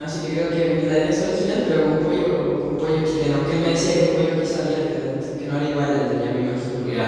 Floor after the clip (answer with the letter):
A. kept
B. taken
B